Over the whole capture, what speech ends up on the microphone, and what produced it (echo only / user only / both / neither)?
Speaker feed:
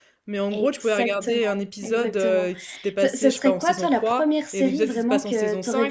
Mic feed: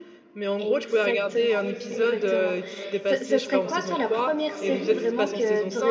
both